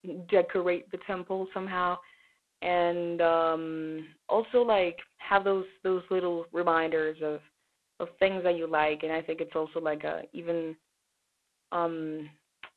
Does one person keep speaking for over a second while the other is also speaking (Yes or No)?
No